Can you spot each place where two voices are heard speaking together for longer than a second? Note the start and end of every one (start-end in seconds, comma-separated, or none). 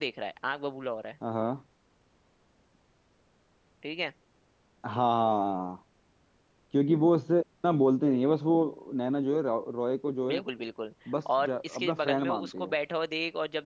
11.4-12.7